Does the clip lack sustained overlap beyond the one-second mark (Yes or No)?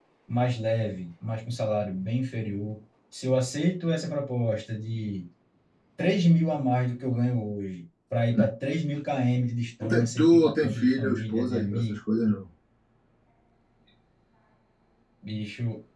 No